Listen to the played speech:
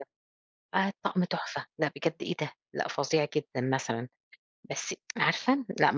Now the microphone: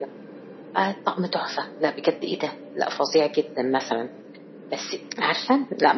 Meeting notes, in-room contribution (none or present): none